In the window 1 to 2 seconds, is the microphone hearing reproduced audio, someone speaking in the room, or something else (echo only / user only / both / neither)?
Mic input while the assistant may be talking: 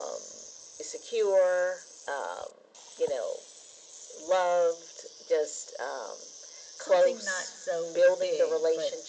echo only